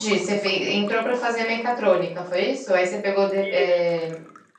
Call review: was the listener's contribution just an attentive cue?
Yes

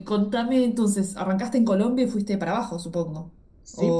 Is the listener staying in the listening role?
No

